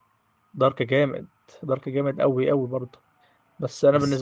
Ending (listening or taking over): listening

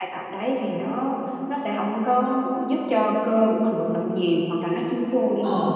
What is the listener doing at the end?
listening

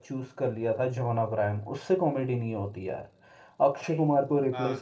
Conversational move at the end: listening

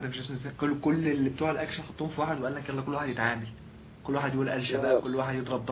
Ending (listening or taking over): listening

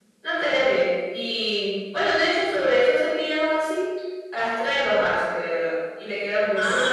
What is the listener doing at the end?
taking over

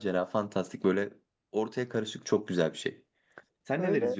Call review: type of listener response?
taking over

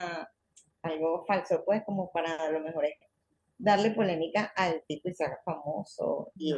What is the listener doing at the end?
listening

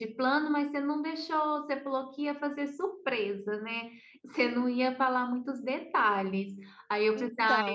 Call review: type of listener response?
listening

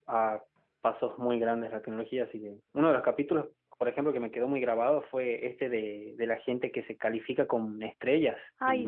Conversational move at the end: listening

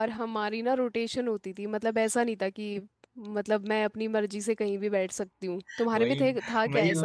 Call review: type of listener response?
taking over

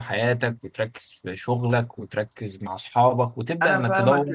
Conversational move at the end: taking over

